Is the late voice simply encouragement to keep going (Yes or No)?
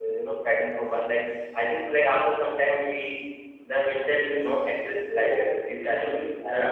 No